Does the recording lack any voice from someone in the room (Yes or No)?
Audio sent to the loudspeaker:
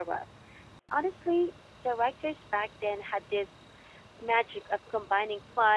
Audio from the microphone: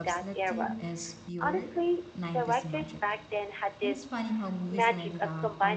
No